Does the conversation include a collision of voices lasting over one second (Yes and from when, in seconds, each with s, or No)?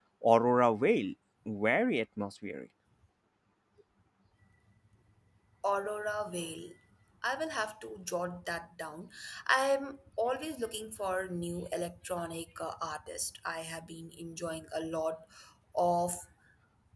No